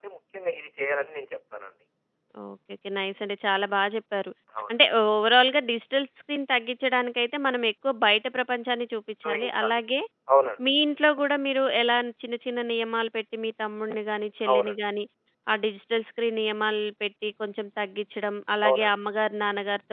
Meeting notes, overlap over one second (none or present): none